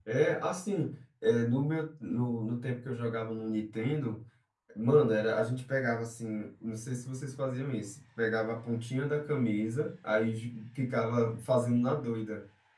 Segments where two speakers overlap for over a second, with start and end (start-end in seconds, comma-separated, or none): none